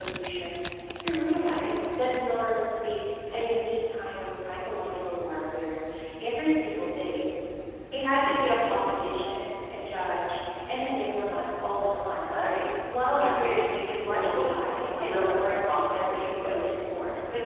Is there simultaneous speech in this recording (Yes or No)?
Yes